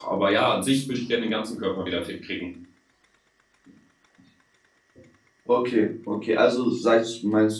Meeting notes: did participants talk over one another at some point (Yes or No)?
No